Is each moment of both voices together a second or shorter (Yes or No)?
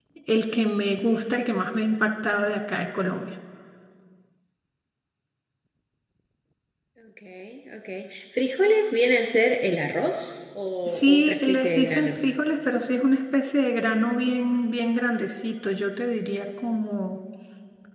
No